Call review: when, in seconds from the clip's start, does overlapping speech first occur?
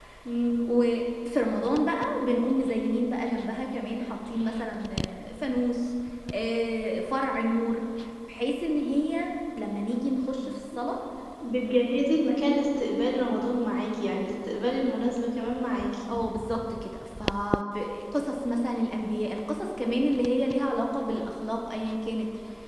none

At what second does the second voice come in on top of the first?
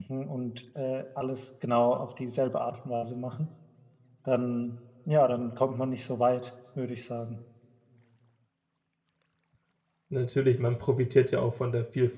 none

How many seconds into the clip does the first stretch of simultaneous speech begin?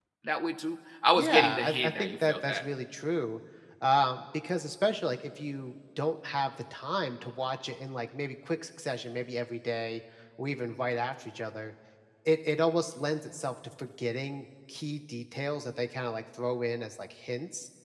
1.1 s

